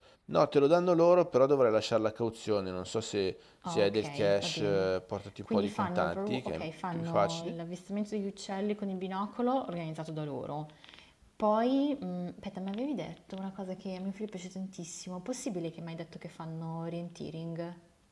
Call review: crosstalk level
present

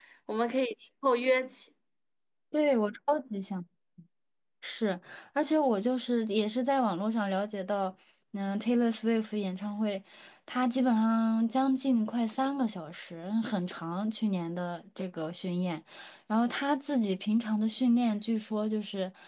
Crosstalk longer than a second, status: none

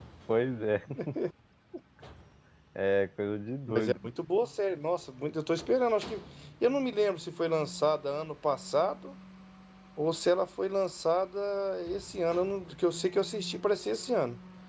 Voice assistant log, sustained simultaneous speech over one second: none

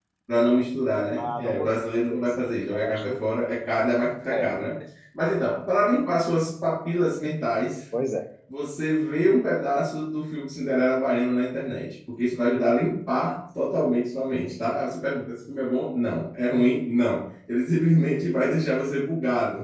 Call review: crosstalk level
present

